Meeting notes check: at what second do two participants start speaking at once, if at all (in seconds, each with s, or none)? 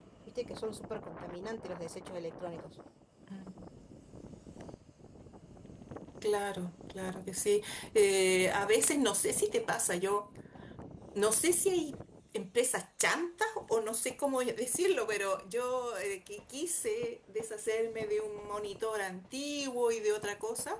none